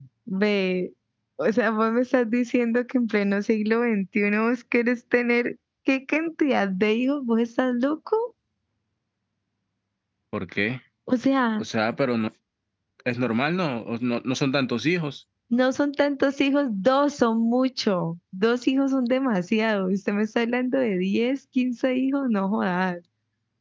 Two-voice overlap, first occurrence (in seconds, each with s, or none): none